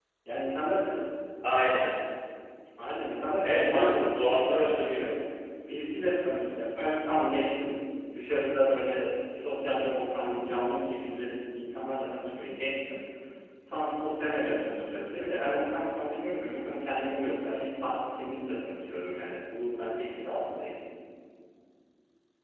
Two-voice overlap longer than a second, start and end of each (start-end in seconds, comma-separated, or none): 3.4-5.1